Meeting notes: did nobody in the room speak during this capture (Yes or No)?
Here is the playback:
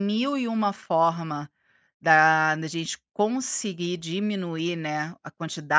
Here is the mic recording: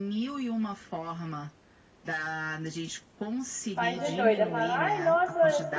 No